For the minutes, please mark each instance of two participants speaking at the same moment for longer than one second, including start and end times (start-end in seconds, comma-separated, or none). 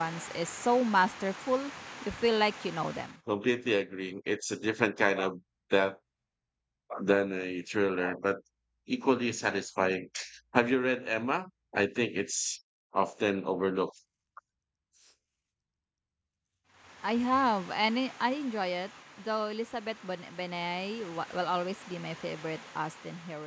none